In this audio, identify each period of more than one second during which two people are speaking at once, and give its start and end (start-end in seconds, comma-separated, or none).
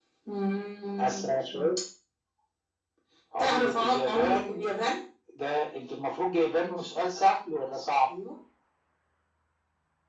3.4-4.6